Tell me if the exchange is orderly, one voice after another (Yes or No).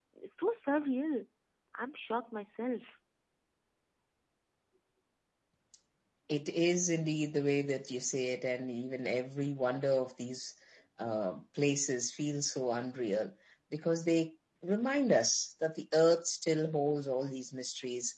Yes